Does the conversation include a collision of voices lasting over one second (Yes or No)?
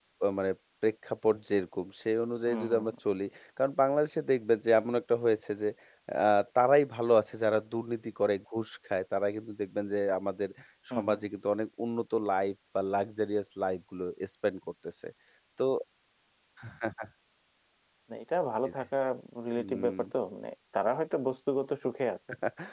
No